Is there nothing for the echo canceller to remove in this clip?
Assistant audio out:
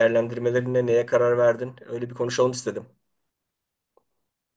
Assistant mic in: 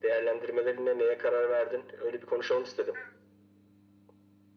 No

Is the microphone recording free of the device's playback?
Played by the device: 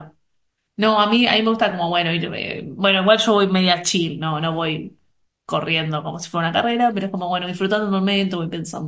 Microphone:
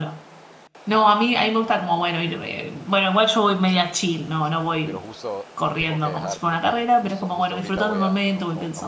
No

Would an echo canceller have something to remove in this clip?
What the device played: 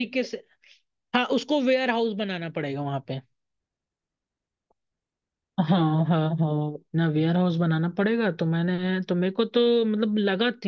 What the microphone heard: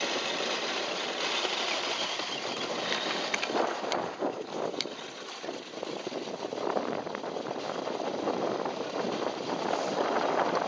No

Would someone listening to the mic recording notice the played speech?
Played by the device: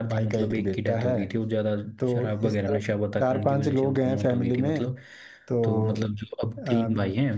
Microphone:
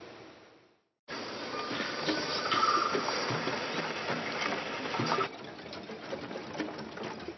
No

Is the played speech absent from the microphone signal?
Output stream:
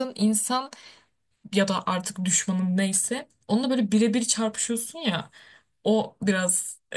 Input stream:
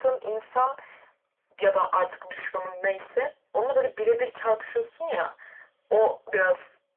No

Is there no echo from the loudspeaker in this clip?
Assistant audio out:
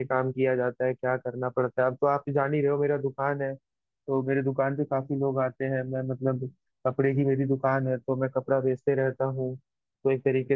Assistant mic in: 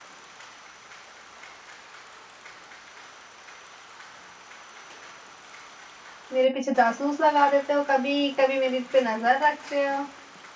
Yes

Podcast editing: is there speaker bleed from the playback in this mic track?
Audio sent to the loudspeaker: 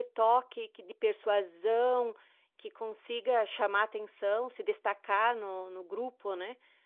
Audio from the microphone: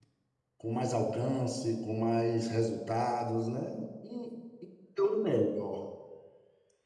No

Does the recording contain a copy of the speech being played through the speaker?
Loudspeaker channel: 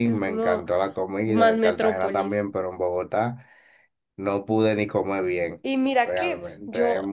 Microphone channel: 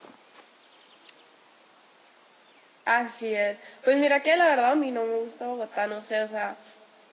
No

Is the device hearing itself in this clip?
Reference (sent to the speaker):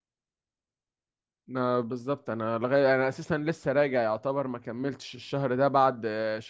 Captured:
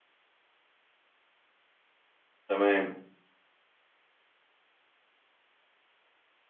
No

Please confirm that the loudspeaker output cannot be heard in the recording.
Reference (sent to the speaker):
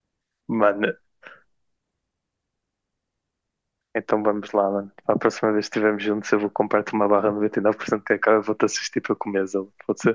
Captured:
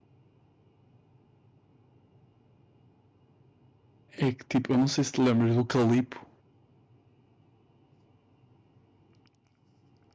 Yes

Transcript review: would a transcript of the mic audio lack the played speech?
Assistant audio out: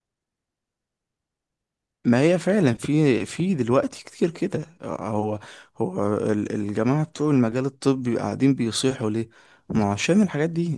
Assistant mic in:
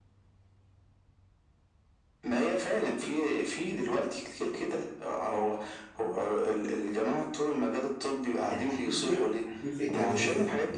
No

